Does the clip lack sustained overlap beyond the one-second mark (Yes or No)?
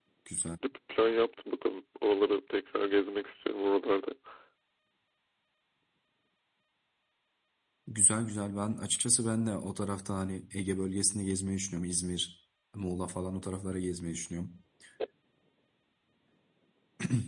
Yes